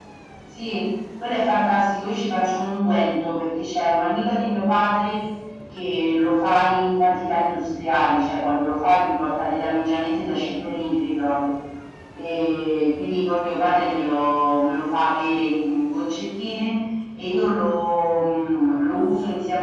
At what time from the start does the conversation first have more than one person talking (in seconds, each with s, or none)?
none